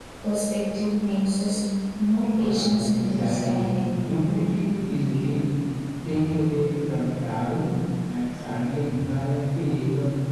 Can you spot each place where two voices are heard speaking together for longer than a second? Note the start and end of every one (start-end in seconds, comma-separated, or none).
2.4-3.6